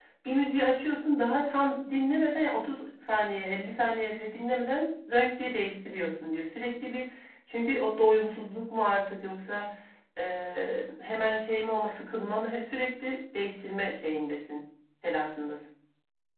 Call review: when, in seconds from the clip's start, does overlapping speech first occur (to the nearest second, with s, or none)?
none